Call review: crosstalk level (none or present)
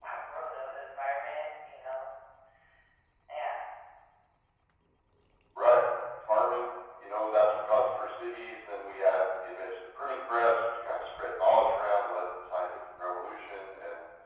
none